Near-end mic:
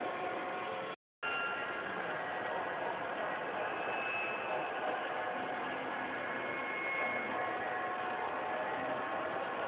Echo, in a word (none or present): none